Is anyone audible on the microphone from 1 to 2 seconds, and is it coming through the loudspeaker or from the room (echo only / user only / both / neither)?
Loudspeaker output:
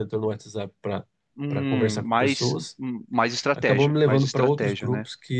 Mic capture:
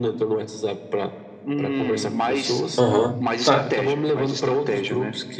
echo only